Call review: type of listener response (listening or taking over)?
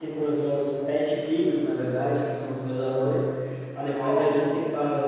listening